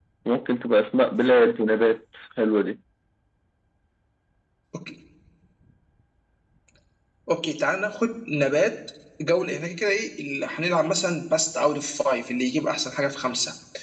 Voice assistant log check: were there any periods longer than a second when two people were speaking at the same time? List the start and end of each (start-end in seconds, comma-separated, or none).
none